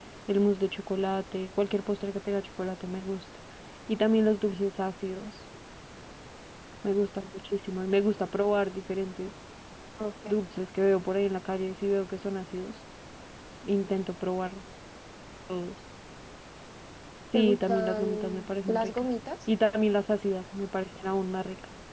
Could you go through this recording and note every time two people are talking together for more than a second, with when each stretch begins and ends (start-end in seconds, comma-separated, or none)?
17.3-19.1